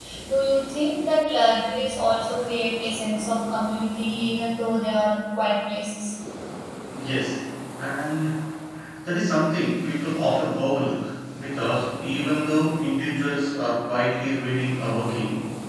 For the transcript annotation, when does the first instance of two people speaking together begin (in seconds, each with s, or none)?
none